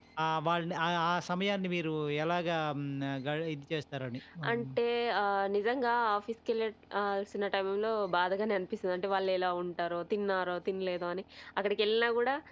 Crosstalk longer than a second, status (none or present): none